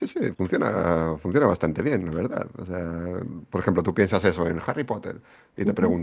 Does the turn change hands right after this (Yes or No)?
No